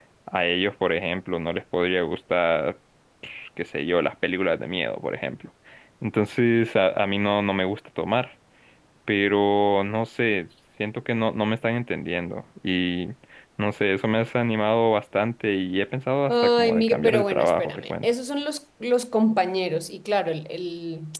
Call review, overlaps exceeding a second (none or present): present